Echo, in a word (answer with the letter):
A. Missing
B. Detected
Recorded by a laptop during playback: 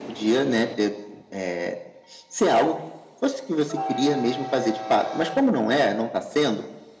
B